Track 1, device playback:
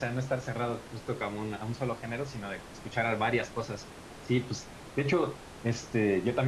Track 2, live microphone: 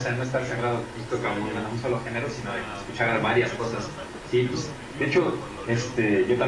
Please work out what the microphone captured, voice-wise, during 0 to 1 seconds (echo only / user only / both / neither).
both